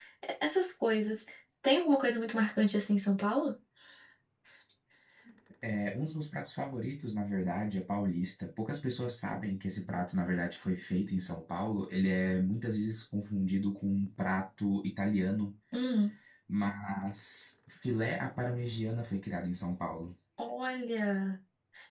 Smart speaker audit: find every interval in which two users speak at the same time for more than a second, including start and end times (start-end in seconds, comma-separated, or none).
none